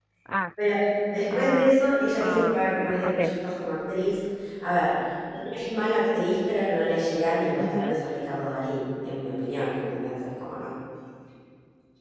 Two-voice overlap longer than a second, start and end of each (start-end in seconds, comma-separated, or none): none